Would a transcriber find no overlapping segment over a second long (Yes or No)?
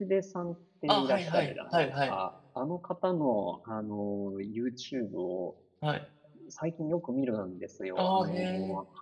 No